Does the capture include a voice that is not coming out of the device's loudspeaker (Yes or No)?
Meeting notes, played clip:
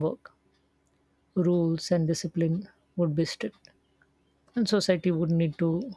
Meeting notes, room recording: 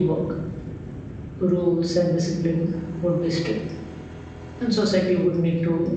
No